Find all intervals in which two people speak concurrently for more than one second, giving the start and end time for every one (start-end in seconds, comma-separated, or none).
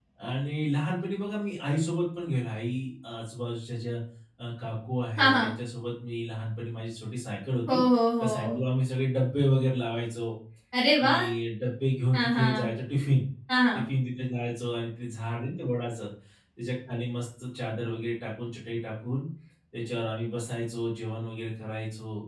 none